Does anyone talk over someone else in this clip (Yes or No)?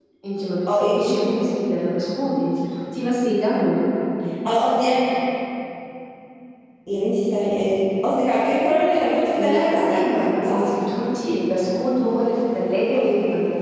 Yes